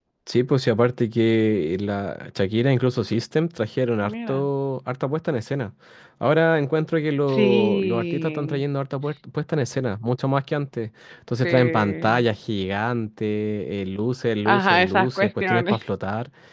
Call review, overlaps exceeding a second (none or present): present